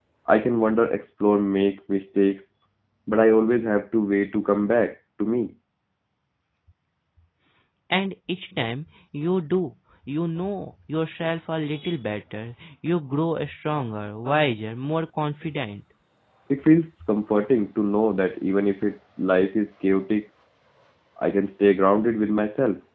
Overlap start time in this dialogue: none

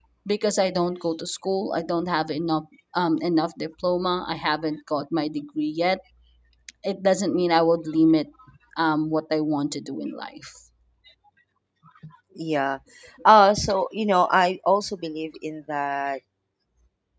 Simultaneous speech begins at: none

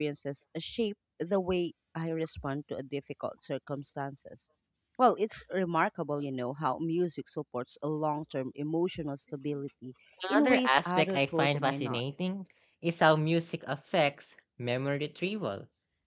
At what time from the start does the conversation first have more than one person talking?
10.2 s

